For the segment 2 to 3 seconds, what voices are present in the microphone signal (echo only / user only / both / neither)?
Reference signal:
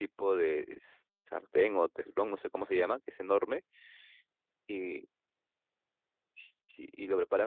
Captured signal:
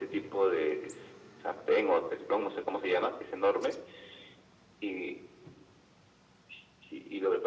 echo only